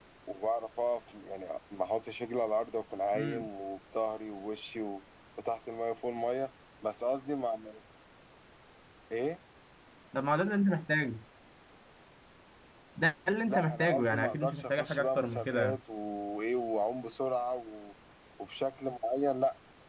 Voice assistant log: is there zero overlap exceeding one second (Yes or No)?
No